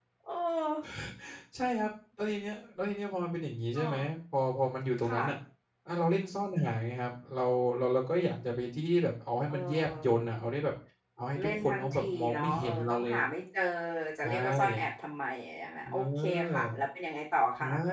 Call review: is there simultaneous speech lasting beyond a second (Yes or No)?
Yes